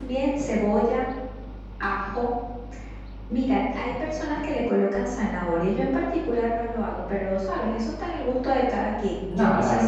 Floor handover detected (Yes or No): Yes